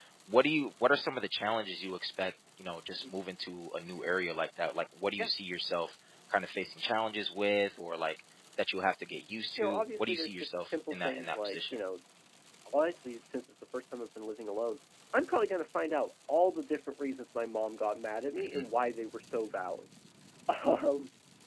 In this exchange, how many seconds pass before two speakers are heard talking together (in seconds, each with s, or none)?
9.6 s